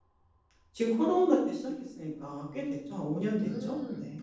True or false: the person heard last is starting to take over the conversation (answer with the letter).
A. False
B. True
B